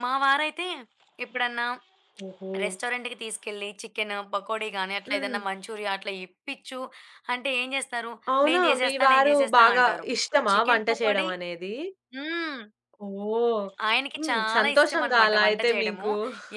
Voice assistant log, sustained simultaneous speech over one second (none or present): present